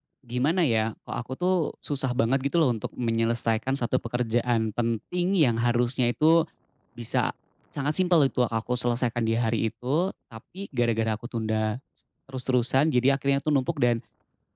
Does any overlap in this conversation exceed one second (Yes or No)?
No